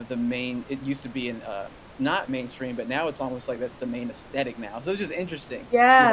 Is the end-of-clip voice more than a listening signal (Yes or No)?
Yes